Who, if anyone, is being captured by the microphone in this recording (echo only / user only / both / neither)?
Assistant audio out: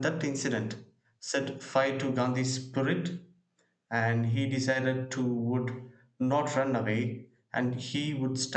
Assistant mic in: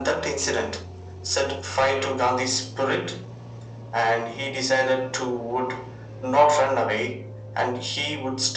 echo only